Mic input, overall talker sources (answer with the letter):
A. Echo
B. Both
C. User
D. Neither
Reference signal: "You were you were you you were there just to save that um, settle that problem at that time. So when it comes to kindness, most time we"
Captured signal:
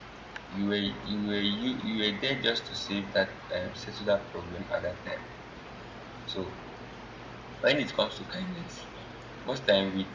A